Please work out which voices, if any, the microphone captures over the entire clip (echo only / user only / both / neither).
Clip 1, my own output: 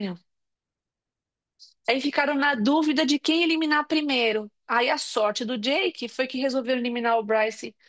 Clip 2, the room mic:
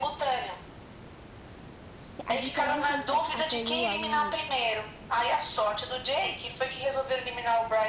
both